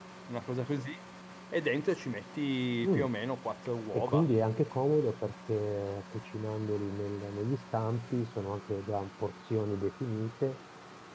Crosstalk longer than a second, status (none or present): none